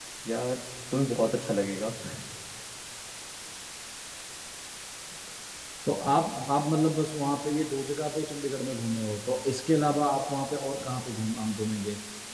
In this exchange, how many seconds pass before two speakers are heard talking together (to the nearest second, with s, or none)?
none